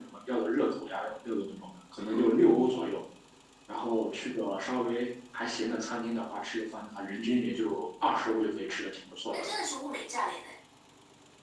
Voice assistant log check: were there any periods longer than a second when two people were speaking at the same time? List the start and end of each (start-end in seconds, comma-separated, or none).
none